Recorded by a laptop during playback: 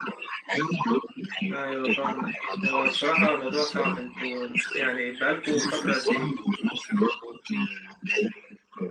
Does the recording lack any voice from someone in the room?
No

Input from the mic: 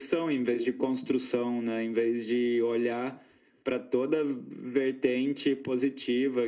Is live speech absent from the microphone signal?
Yes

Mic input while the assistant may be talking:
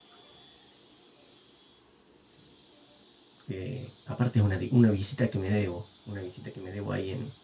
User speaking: Yes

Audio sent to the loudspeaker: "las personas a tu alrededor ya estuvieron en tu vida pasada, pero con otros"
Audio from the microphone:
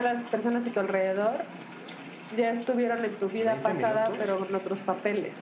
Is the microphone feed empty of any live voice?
No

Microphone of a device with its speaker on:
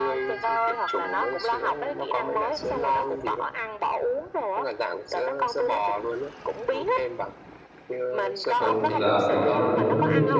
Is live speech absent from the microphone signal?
No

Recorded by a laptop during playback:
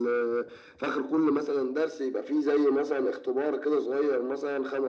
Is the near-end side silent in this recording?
Yes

